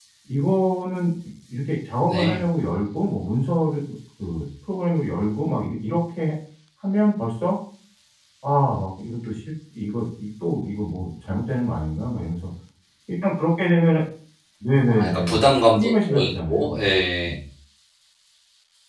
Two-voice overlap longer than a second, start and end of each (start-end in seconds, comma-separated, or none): 14.9-17.3